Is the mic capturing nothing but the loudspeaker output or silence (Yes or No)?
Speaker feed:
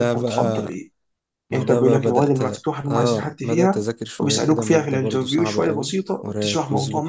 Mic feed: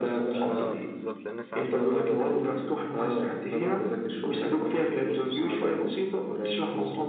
No